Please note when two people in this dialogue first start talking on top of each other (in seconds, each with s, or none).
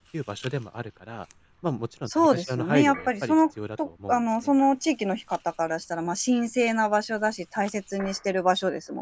2.1 s